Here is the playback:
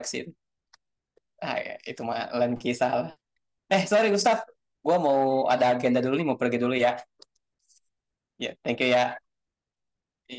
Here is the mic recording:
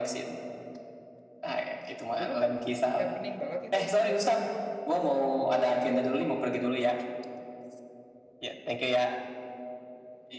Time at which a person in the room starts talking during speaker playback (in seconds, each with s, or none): 2.2 s